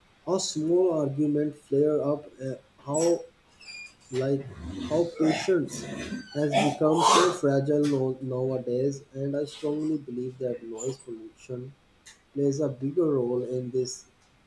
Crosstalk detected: No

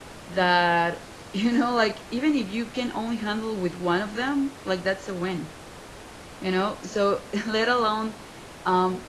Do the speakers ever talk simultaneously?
No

